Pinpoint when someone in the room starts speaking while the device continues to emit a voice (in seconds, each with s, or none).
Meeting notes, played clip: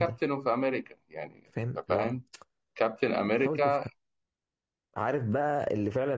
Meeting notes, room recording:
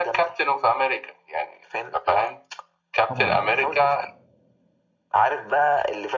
3.1 s